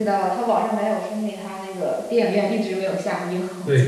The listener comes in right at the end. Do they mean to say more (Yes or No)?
Yes